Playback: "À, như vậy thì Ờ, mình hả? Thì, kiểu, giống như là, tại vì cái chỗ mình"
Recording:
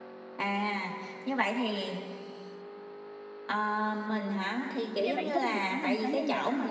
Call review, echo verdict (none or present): present